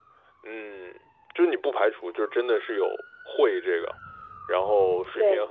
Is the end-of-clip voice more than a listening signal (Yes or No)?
No